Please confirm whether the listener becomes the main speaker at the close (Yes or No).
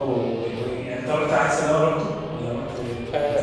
Yes